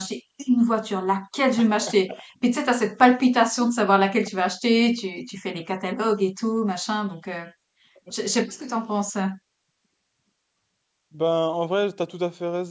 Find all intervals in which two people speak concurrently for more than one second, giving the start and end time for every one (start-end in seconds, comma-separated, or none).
none